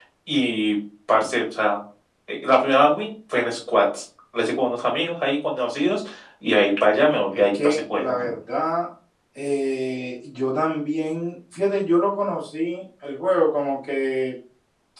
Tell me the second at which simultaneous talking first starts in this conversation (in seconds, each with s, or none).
7.0 s